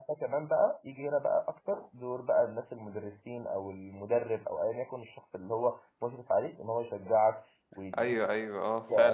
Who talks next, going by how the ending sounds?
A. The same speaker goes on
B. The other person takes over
B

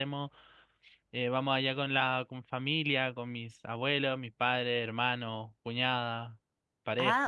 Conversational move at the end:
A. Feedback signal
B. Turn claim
B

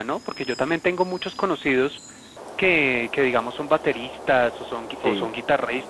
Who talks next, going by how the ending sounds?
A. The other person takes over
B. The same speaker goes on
B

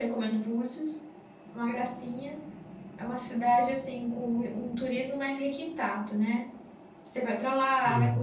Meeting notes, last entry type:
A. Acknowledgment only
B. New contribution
A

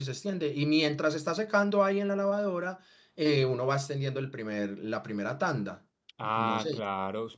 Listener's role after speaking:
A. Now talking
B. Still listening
A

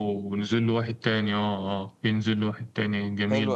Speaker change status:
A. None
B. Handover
B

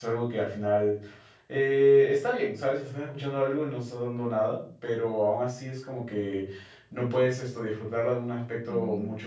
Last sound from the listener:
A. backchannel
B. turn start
A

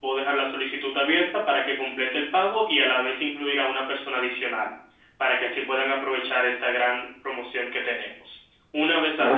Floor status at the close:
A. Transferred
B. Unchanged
A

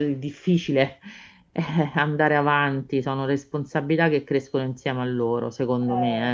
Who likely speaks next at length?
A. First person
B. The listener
B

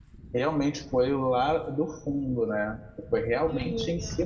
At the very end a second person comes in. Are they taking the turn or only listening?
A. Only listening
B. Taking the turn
A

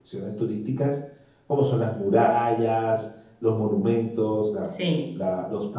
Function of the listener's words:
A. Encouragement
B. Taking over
A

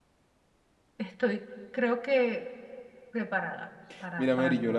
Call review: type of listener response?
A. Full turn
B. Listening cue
A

